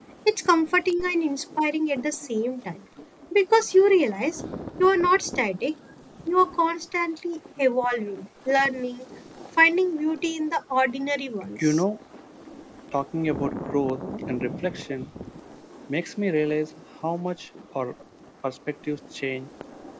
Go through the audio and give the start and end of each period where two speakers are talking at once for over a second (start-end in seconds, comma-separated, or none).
none